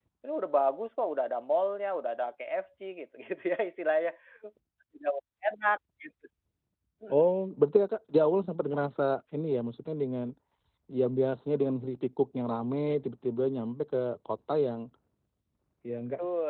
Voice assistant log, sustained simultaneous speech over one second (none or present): none